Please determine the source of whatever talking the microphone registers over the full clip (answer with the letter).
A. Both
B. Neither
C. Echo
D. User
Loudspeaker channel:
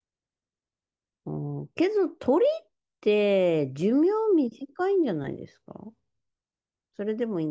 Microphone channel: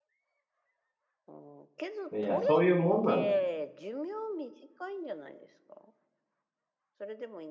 A